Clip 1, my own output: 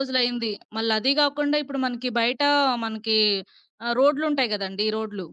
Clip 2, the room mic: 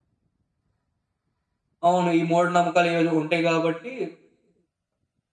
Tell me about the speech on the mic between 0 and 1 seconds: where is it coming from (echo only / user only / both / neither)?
neither